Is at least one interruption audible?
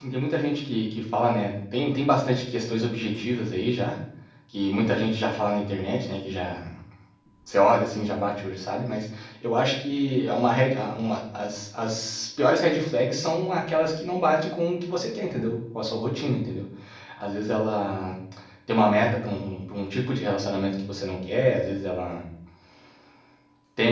No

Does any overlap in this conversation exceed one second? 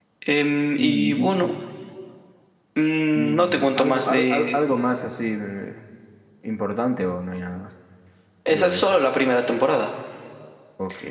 Yes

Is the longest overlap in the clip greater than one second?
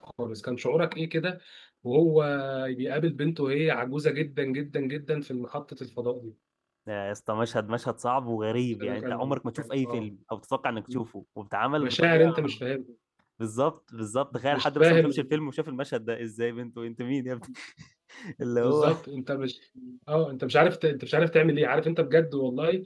Yes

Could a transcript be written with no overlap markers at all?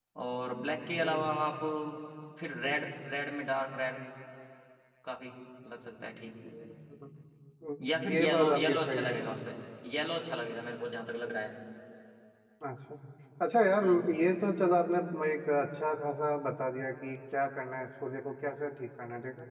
No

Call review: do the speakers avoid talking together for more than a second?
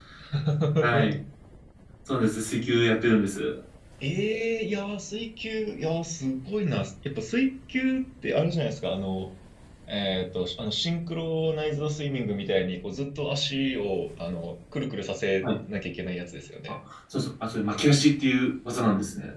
Yes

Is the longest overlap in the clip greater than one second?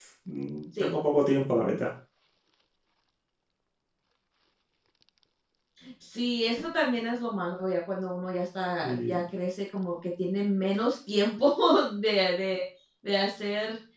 No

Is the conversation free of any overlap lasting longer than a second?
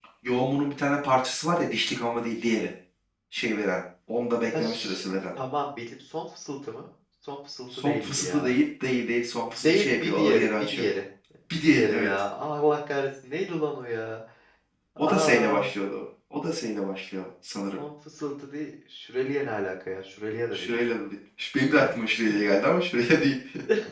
No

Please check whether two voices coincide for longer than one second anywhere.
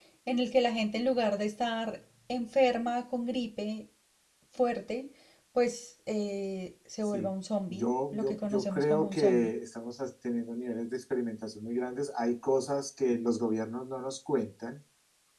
Yes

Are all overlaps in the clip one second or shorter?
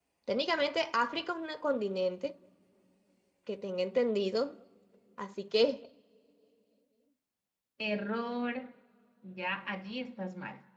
Yes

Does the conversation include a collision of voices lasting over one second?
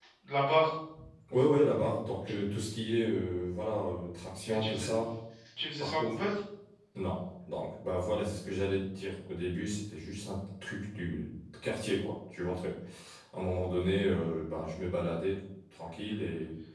No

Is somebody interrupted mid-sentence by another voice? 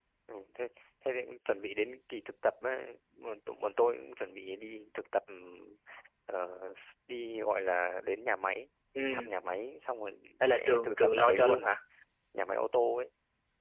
Yes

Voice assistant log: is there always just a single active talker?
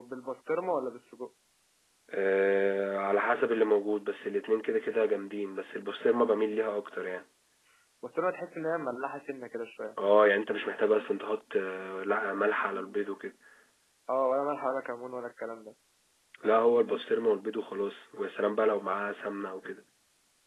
Yes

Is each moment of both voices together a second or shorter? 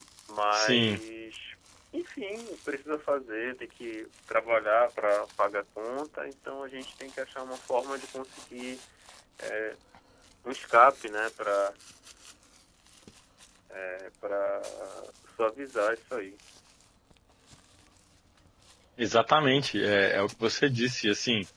Yes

